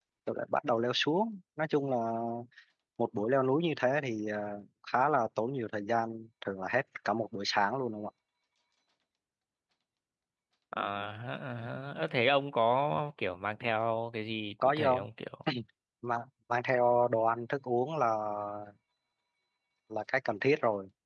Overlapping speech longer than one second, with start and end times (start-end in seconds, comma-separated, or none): none